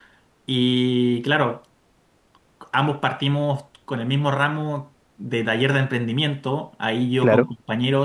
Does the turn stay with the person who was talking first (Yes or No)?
Yes